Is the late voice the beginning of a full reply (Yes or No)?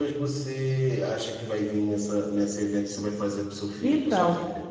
Yes